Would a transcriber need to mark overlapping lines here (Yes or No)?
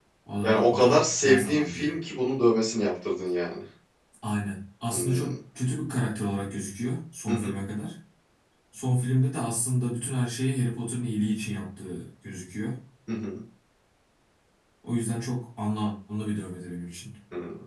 Yes